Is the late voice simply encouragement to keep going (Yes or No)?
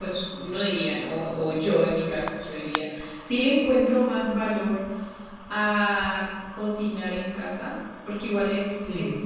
Yes